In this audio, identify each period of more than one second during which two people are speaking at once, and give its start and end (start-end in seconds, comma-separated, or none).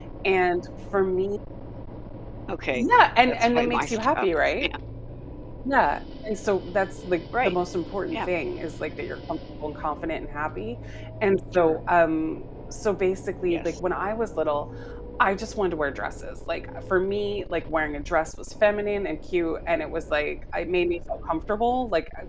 3.2-4.5